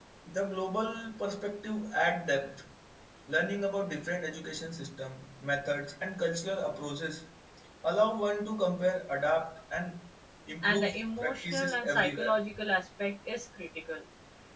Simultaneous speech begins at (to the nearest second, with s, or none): 11 s